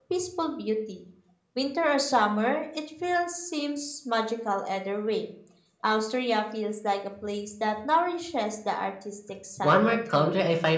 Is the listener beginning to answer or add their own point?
Yes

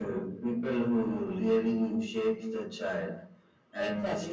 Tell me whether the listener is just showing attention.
No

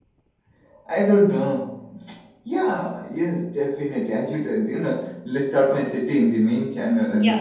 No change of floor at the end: No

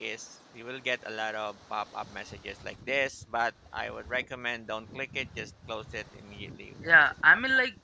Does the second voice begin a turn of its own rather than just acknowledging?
Yes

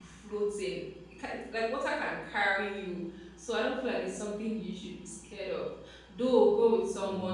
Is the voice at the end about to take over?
No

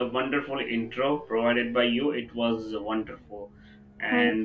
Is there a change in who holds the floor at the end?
No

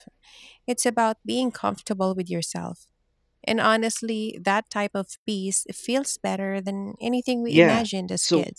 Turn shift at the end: Yes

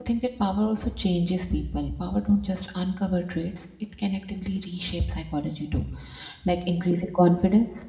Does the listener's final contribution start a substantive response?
No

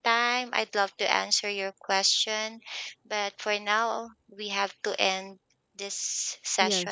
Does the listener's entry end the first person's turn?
Yes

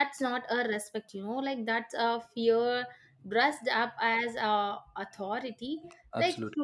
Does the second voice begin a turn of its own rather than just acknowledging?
No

